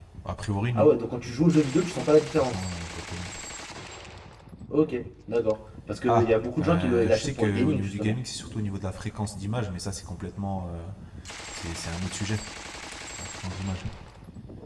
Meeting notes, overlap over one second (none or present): present